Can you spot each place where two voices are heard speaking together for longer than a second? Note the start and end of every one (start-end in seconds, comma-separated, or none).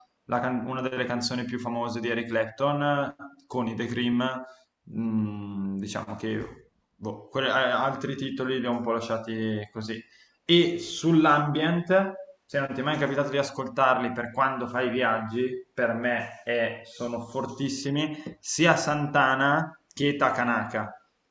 none